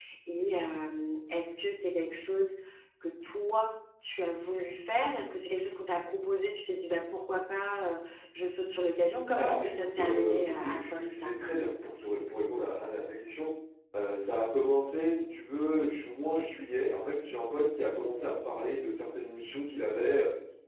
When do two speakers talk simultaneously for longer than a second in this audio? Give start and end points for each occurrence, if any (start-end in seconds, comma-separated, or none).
9.3-11.3